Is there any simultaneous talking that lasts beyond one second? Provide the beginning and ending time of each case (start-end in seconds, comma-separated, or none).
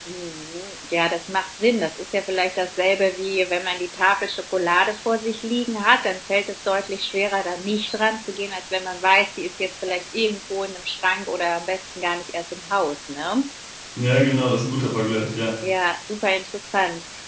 none